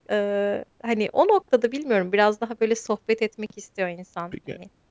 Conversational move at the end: taking over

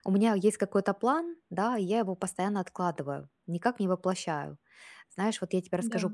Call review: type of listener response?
listening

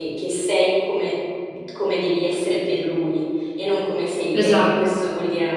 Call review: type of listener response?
listening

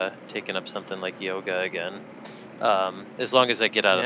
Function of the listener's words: listening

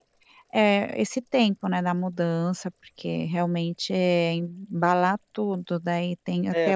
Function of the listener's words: taking over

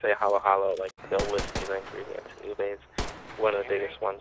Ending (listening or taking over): taking over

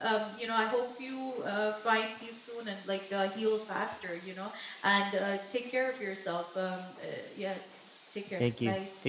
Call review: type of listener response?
taking over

